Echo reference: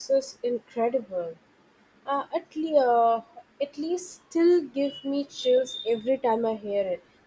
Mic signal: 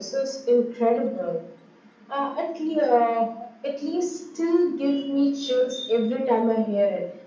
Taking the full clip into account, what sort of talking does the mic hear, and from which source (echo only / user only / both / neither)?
echo only